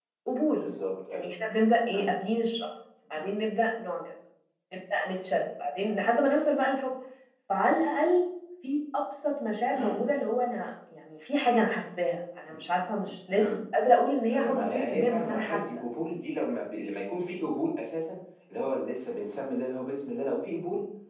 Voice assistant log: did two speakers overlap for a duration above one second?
Yes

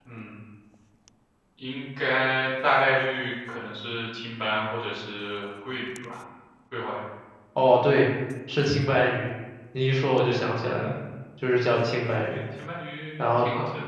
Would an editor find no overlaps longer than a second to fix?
Yes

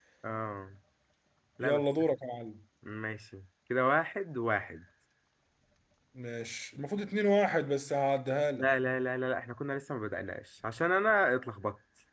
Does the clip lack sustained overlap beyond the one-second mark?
Yes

